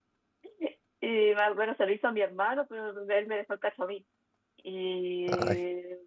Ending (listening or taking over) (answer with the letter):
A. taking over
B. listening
B